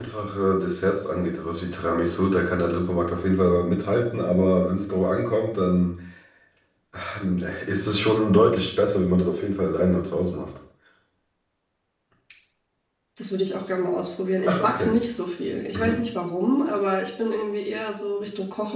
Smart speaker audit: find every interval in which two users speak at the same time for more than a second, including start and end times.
none

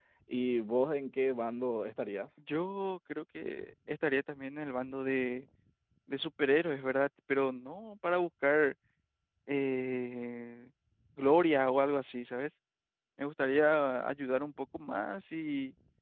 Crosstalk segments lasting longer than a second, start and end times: none

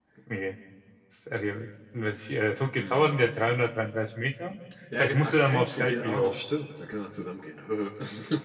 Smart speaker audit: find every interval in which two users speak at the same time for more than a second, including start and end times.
5.0-6.3

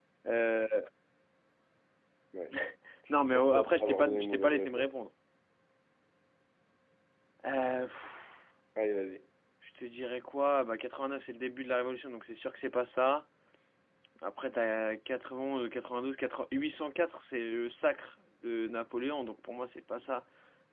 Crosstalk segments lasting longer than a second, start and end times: 3.3-5.0

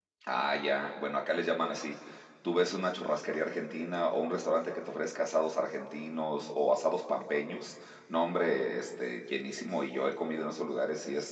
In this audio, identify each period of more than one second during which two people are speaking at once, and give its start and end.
none

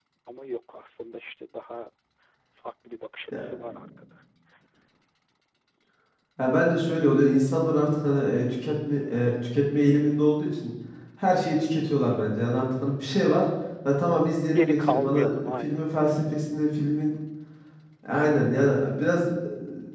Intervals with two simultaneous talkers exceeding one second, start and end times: 14.6-15.9

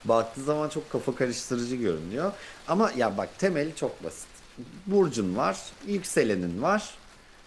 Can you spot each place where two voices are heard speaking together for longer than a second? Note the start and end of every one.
none

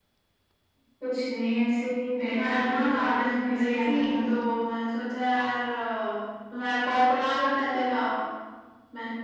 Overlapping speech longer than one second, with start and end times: 2.3-4.4

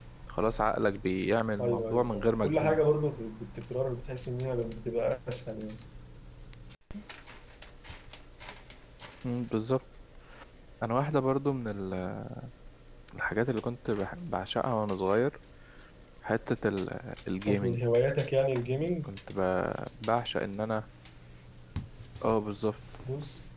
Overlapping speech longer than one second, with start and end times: 1.6-2.9

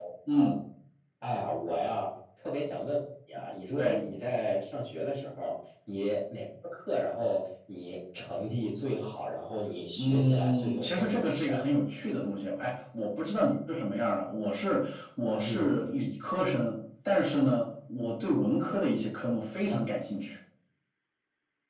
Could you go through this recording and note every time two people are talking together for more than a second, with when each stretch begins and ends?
10.0-11.6

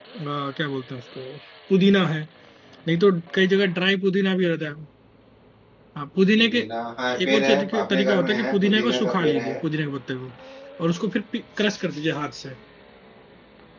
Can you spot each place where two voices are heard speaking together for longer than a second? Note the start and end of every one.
7.2-9.6

